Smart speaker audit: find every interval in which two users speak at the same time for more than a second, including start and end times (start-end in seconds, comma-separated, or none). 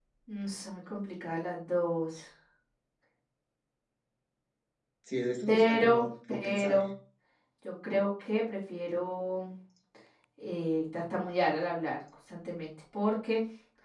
5.5-6.8